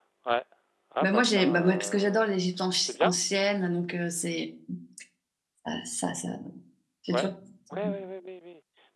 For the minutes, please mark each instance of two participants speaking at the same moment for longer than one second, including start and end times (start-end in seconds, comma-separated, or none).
1.0-2.3